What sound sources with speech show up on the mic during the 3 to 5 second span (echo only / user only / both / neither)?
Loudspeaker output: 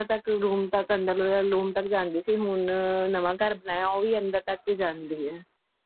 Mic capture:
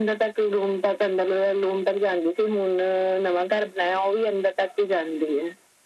echo only